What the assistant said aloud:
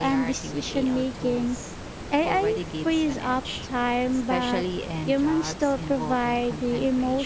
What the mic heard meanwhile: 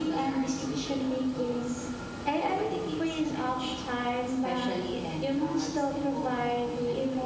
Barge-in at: none

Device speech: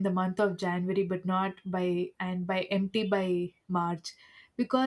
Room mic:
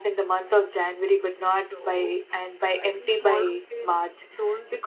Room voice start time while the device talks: 1.5 s

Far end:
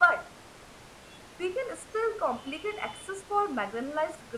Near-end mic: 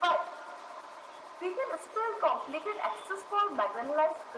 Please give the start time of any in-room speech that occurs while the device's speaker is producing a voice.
none

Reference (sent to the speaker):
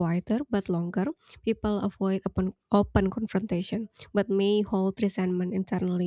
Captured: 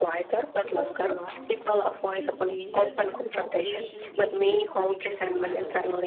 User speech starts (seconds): 0.6 s

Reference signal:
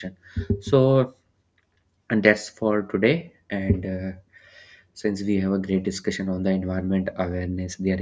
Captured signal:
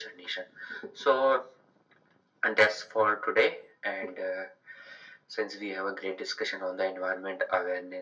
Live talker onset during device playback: none

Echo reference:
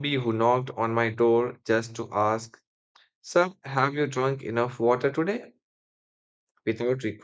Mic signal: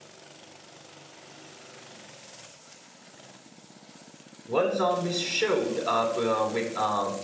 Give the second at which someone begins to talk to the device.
4.5 s

